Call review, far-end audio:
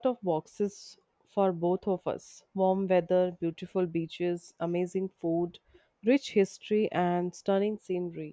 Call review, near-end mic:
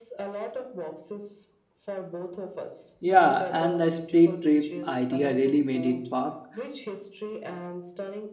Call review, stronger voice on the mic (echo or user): user